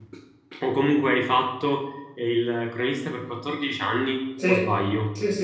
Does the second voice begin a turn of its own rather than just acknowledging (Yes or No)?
Yes